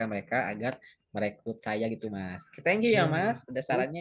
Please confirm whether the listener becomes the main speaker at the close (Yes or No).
Yes